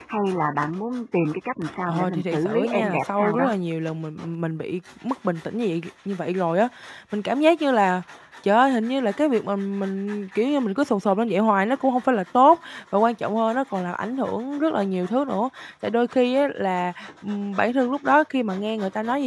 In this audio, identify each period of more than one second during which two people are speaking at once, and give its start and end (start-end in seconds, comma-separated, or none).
1.9-3.5